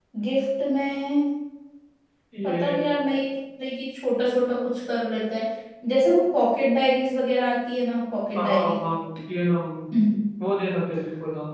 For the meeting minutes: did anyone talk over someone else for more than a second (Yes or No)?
No